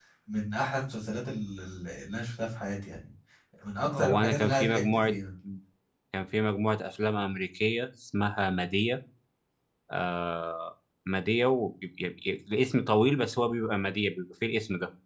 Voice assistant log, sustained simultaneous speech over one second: present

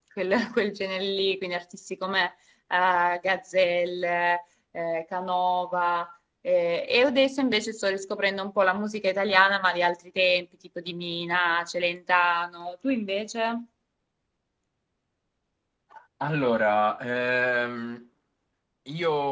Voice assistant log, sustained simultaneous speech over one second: none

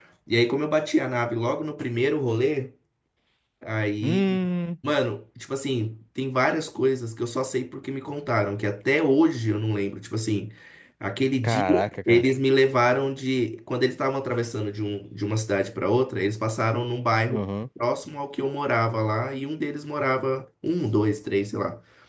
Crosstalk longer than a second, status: none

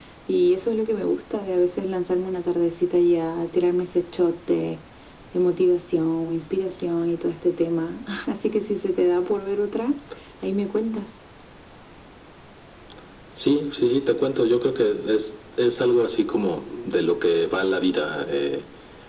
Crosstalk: none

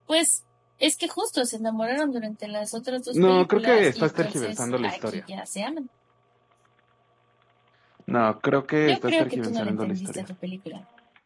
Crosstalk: present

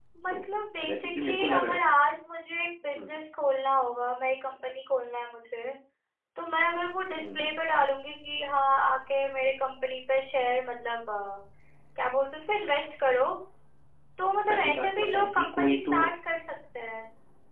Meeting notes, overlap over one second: present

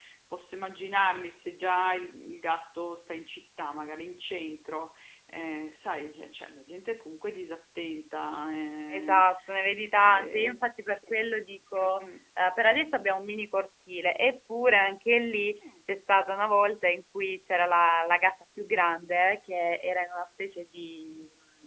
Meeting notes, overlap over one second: none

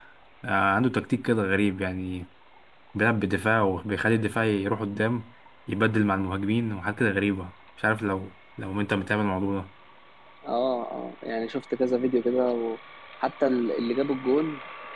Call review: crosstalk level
none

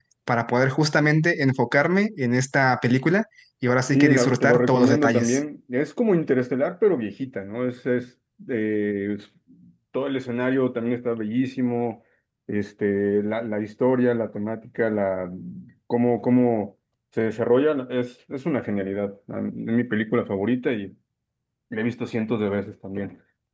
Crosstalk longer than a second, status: present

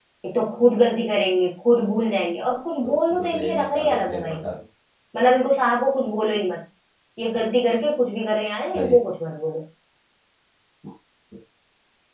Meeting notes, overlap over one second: present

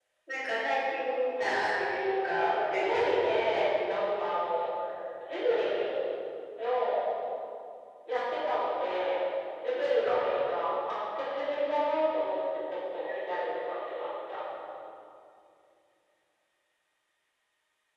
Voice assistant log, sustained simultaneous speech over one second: present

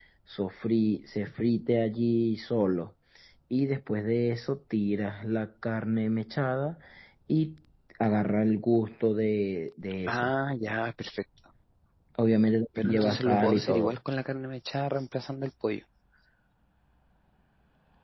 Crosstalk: present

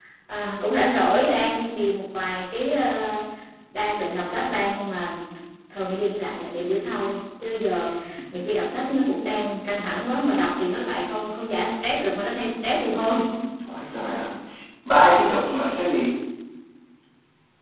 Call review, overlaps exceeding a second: none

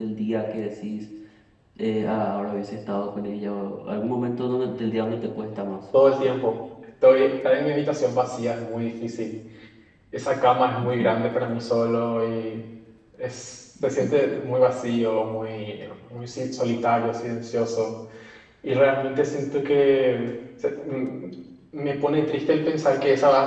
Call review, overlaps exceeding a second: none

